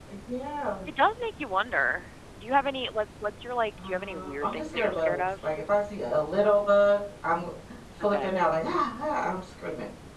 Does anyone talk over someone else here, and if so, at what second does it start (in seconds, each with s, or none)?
3.8 s